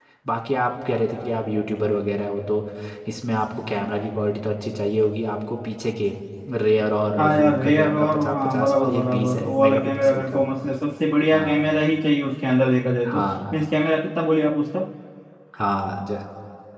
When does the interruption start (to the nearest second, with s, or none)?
7 s